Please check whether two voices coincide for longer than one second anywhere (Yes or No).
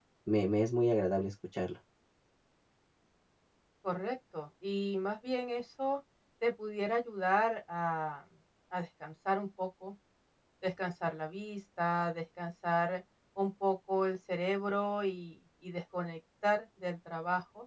No